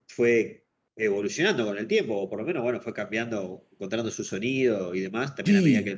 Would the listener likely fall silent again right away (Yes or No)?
Yes